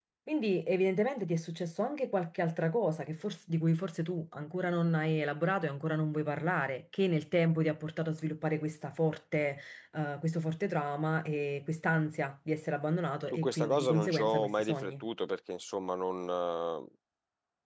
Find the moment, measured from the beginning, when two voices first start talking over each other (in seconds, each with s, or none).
13.3 s